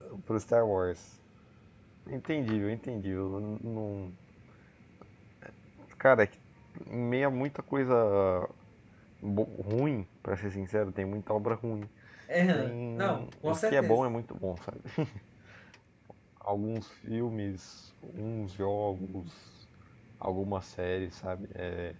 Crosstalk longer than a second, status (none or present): present